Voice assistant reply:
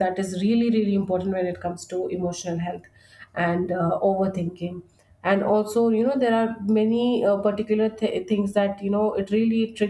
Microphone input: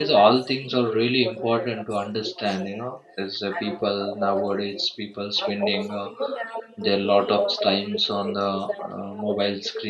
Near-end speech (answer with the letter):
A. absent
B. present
B